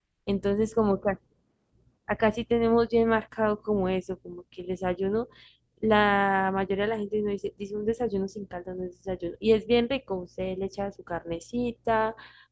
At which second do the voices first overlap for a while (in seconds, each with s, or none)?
none